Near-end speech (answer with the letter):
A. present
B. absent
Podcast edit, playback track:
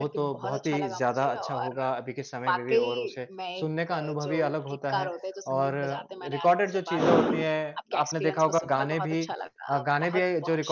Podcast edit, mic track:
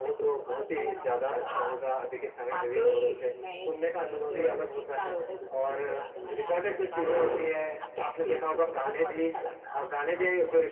A